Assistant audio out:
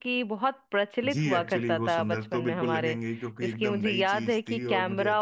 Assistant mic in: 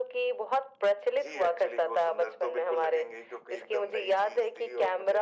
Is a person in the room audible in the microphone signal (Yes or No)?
No